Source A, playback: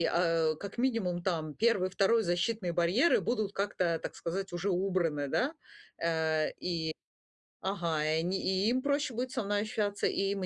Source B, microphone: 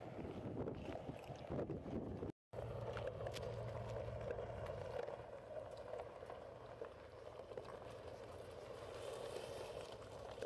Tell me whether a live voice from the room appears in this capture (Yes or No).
No